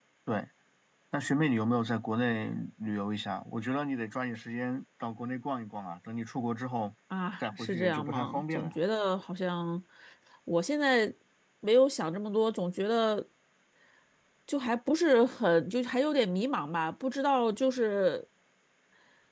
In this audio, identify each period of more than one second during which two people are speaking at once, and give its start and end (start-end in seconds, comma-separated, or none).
7.4-8.7